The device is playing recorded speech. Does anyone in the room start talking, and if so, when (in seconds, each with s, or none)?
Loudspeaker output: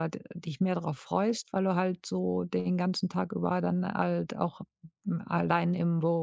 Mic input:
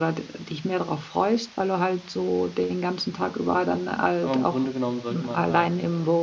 4.2 s